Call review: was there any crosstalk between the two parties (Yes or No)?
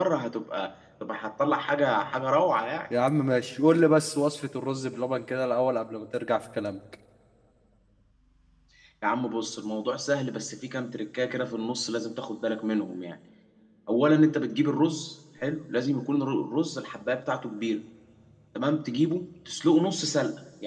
No